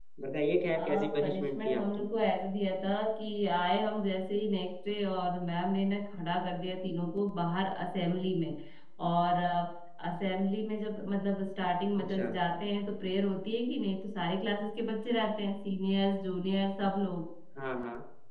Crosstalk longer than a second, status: present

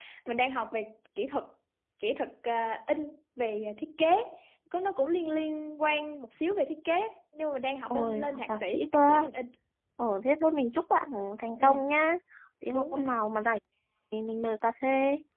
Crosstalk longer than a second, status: present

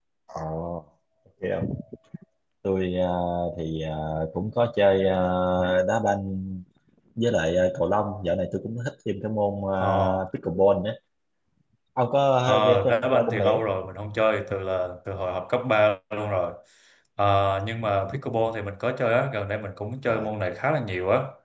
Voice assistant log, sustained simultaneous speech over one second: present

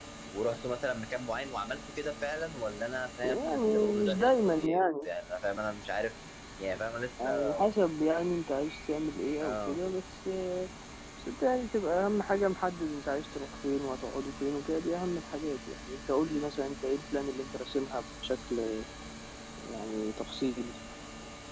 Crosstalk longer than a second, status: present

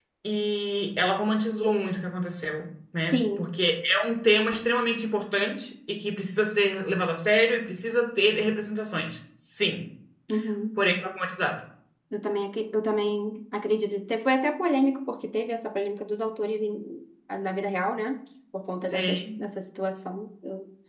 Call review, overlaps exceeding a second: none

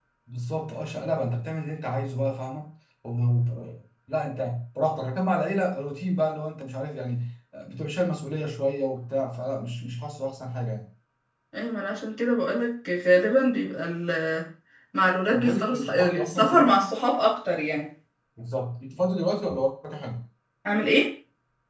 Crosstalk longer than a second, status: present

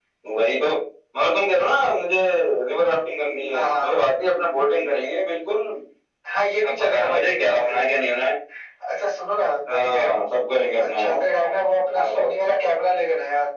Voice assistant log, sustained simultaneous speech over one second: present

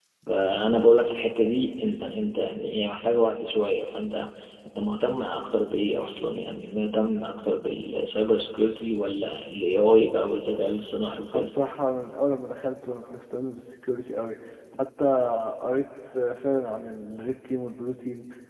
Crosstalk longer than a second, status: none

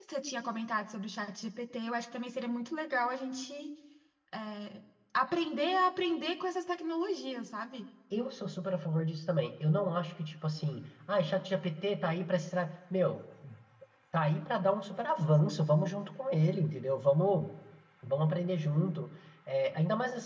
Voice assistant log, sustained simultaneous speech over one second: none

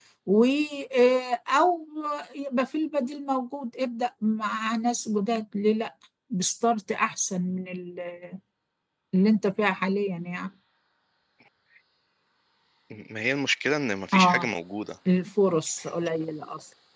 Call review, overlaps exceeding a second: none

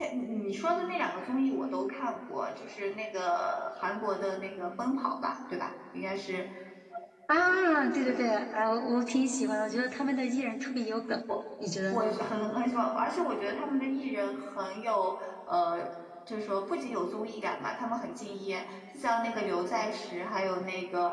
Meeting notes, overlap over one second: none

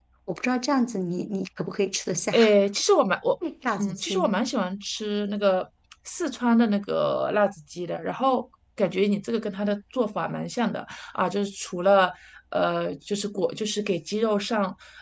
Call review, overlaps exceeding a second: none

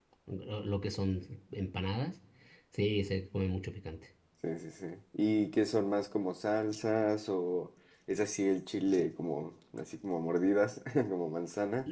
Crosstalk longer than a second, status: none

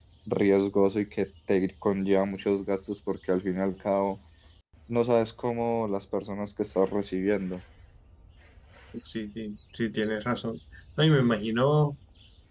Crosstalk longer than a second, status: none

